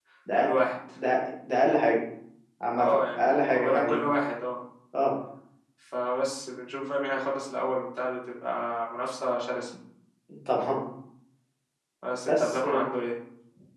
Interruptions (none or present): present